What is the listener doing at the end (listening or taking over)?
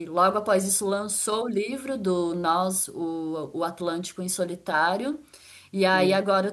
listening